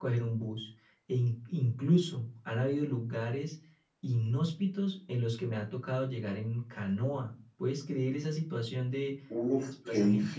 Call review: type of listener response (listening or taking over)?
taking over